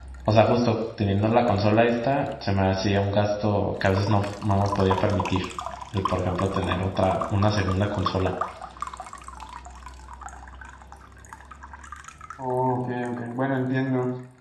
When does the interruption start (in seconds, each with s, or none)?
none